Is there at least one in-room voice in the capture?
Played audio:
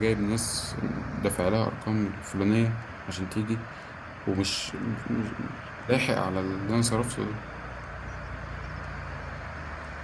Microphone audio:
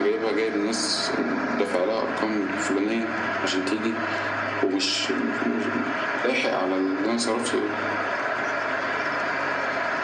No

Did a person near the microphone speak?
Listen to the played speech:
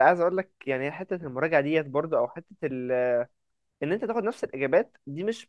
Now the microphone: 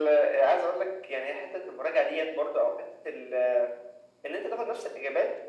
No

